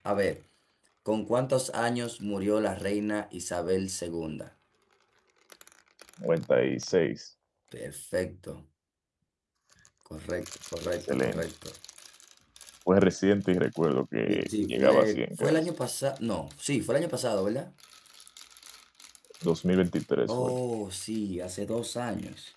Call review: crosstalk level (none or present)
present